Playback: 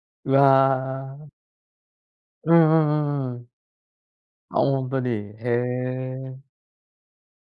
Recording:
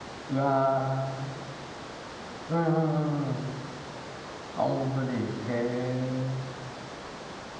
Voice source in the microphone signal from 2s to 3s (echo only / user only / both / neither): echo only